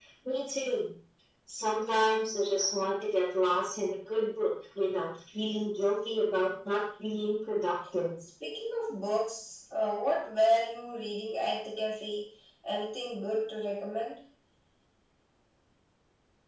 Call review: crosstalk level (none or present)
none